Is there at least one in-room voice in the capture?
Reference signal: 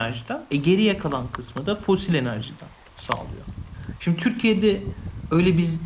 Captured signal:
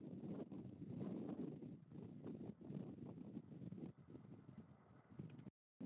No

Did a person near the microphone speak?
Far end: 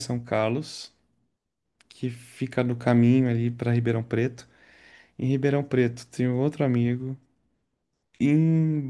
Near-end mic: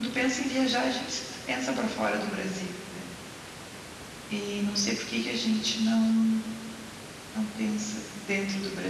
Yes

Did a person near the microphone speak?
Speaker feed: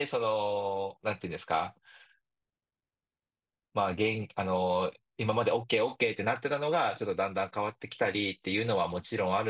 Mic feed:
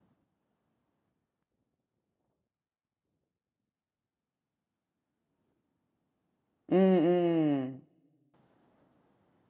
Yes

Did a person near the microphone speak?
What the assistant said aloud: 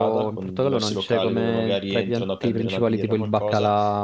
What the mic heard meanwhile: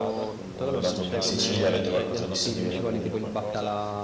Yes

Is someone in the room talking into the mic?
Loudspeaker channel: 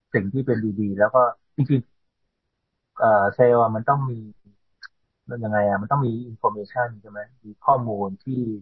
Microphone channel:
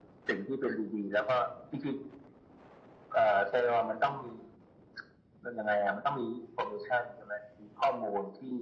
No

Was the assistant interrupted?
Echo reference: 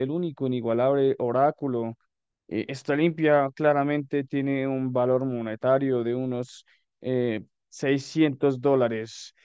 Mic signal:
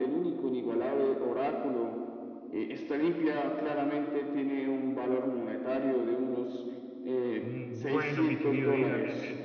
Yes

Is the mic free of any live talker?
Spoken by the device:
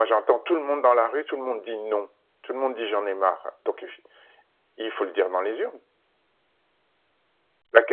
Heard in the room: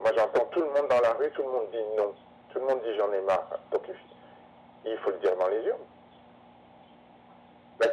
Yes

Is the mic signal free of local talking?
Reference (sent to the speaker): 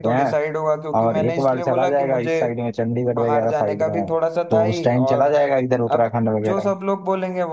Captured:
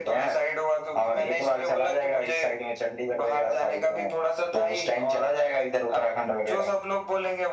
Yes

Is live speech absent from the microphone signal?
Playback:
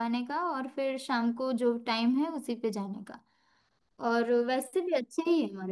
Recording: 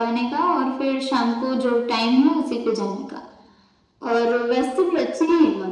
Yes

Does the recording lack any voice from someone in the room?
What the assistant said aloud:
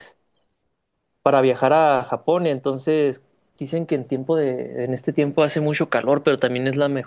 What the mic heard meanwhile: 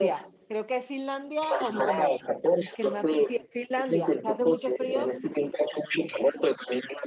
No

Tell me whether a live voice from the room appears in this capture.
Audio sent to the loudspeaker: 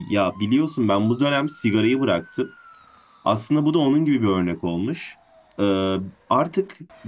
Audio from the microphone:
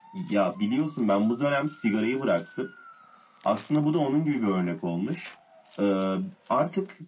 No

